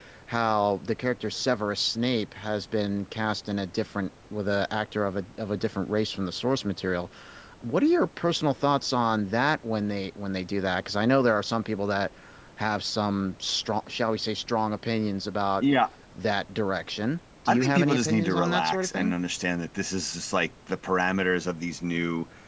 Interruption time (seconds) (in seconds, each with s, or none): 17.5 s